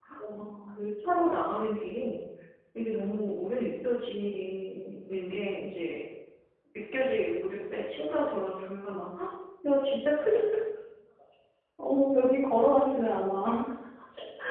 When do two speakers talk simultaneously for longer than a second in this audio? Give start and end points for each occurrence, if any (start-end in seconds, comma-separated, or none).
none